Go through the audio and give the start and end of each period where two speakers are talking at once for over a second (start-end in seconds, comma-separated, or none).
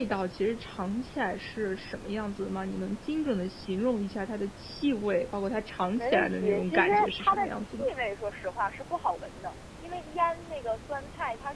6.0-7.9